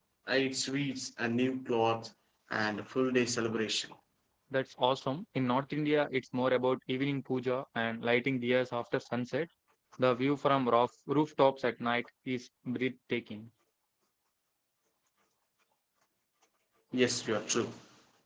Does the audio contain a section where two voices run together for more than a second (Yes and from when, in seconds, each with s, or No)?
No